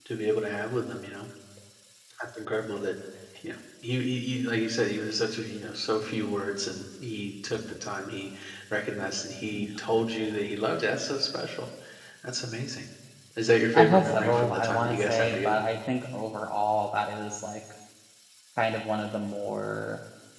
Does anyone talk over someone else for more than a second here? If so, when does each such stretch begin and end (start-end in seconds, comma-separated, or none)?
13.7-15.6